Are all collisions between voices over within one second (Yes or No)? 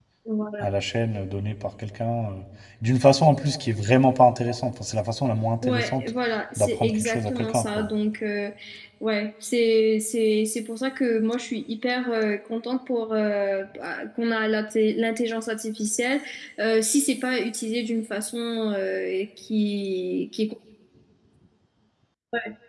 No